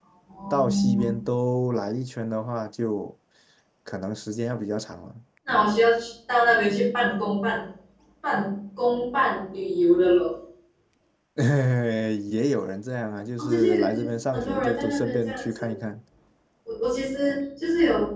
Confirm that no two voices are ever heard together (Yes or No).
No